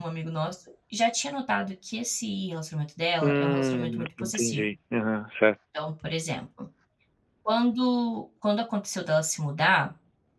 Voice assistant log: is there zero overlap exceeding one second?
No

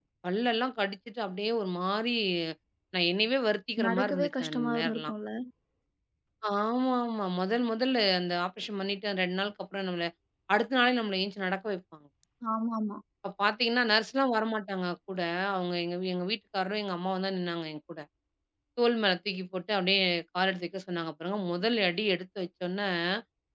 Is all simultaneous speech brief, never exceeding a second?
No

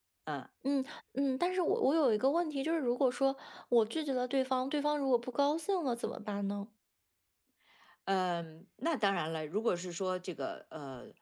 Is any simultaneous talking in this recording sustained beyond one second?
No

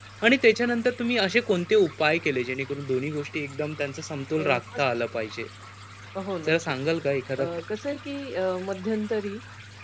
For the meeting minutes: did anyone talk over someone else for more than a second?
No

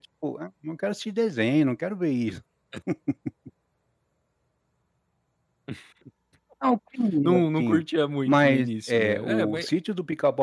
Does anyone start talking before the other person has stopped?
Yes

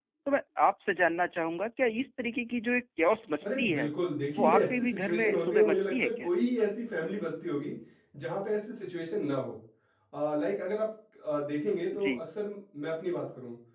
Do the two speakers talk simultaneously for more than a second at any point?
Yes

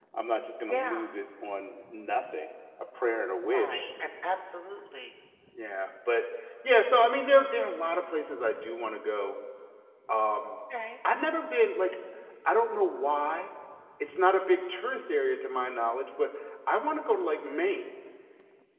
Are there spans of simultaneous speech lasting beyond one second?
No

